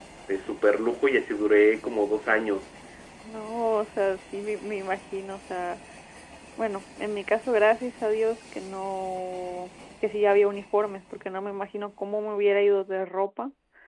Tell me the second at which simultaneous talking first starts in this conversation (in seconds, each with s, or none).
none